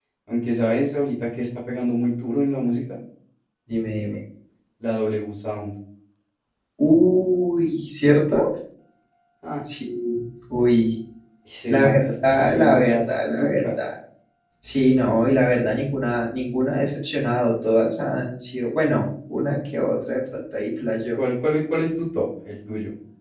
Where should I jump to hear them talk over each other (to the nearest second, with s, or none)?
12 s